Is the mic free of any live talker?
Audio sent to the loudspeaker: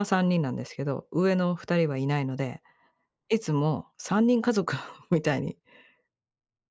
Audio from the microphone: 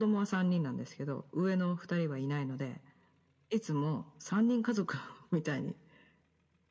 Yes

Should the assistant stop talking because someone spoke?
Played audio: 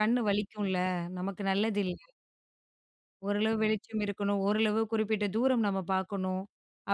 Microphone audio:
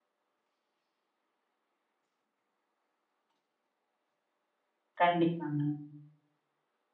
Yes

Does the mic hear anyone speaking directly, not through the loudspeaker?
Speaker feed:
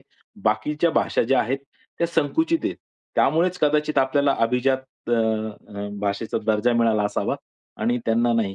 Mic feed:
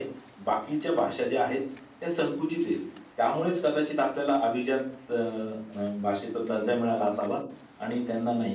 Yes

